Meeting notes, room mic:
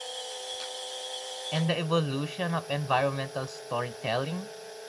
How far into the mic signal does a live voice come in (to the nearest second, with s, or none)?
1 s